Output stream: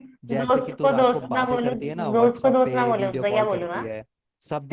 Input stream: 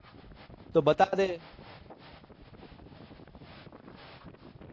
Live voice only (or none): तो बता दे